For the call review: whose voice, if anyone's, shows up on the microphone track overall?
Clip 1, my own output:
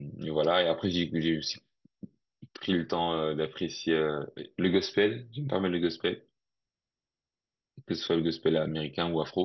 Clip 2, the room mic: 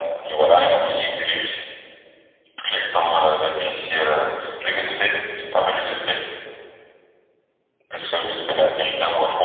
echo only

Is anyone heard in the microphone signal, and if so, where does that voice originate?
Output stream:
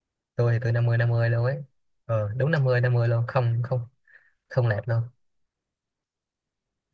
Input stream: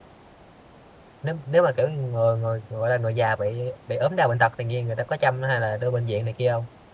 user only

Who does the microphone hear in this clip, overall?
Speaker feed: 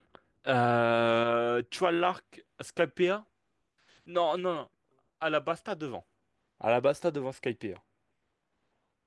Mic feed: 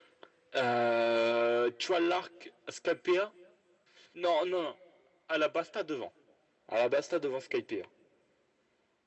echo only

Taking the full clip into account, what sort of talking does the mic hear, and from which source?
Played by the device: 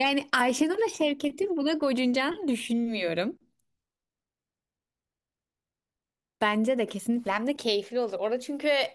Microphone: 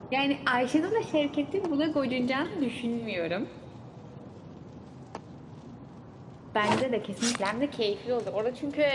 echo only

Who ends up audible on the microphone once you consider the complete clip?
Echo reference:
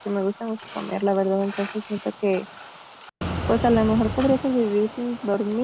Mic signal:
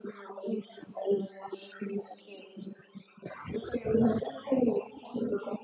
echo only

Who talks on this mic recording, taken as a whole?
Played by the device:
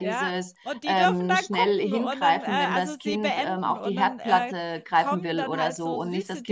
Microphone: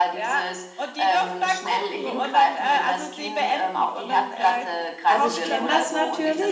both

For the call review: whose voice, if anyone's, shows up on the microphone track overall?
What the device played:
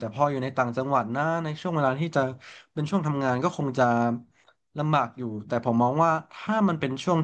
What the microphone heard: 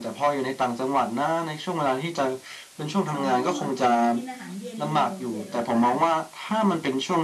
both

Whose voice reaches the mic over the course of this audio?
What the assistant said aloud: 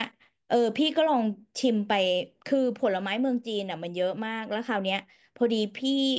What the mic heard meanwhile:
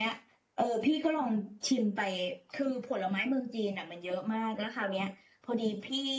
echo only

